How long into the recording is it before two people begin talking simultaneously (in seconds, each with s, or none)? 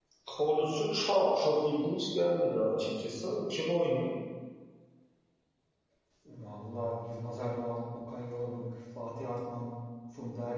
none